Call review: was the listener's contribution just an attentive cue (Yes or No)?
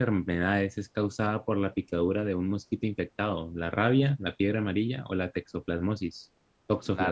No